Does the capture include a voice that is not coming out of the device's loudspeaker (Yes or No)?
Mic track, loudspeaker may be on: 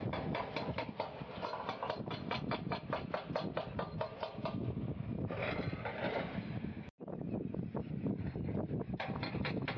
No